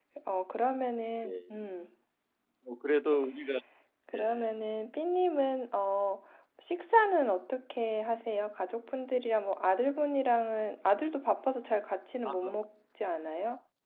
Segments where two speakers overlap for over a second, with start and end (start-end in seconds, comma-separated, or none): none